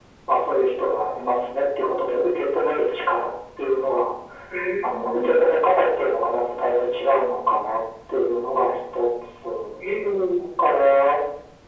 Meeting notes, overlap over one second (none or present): none